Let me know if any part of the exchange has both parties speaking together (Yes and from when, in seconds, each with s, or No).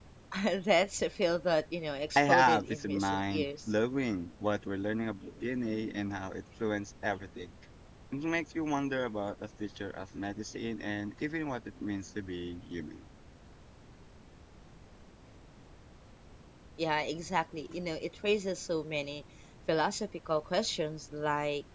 Yes, from 2.2 s